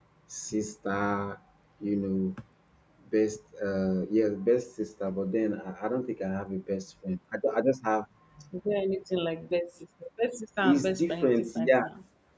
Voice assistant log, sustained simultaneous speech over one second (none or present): present